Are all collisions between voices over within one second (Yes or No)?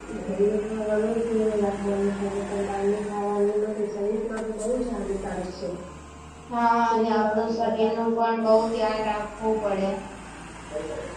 No